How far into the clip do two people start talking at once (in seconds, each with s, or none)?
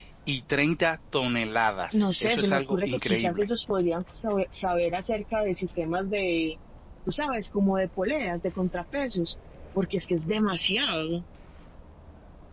1.9 s